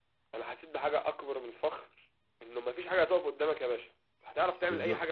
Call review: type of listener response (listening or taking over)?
listening